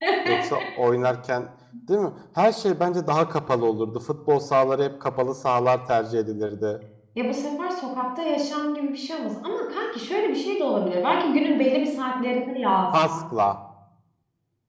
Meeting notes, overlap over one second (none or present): none